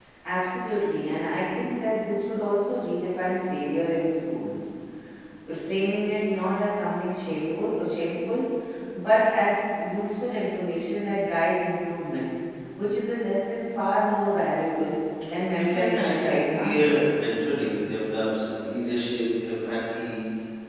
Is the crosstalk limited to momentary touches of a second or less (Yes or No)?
No